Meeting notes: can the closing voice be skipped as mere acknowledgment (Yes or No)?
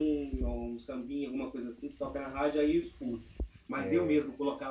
Yes